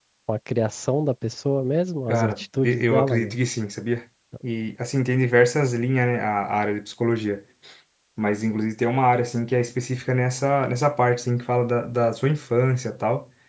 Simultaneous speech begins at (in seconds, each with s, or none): 2.1 s